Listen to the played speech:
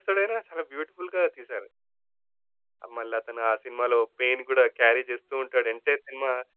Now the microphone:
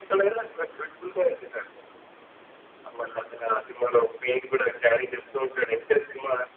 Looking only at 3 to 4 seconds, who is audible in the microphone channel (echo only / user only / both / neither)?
echo only